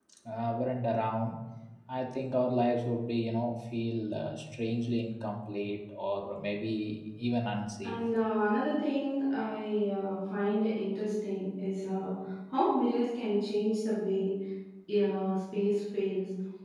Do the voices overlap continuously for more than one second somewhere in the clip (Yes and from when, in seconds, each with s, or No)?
No